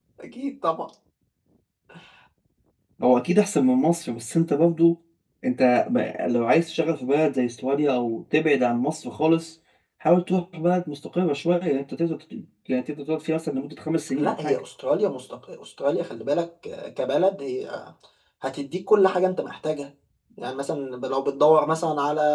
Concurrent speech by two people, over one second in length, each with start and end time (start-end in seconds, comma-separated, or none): none